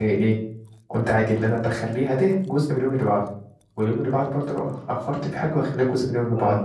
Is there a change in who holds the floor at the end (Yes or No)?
Yes